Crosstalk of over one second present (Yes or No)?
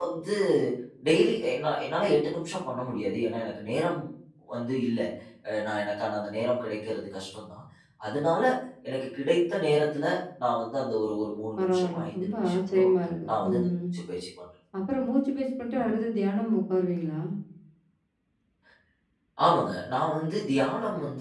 Yes